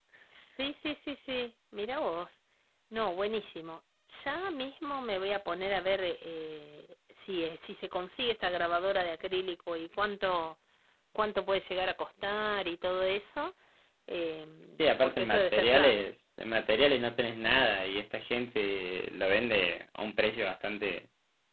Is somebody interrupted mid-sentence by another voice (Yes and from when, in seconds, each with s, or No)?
Yes, from 14.8 s